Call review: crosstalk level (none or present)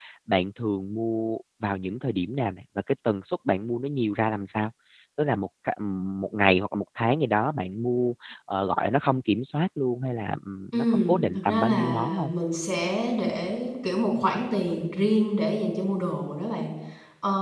present